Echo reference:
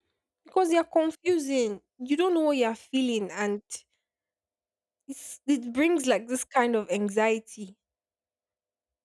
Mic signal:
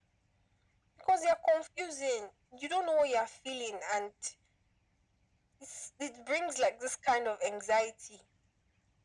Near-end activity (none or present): none